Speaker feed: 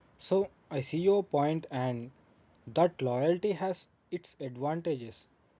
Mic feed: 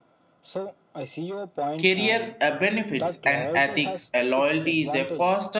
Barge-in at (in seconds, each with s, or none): 1.8 s